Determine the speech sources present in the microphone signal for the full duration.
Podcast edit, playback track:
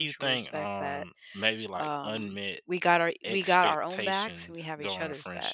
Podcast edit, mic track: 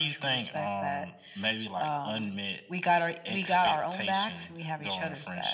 echo only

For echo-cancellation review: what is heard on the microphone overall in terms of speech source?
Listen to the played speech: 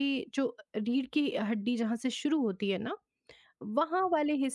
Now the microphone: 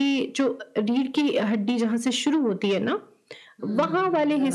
both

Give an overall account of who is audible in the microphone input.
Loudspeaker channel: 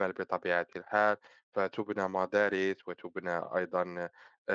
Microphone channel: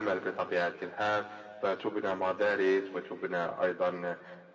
echo only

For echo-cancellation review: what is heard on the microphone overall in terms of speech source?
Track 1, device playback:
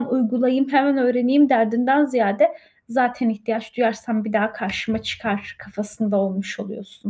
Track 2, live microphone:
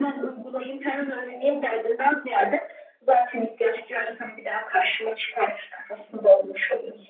echo only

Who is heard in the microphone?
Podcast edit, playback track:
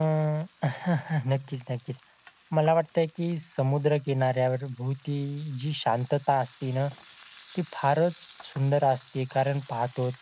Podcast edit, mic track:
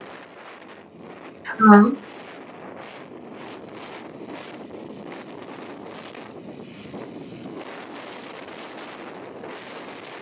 user only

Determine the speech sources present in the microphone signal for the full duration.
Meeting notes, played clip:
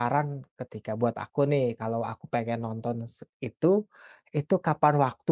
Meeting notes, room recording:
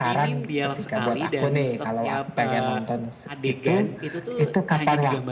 both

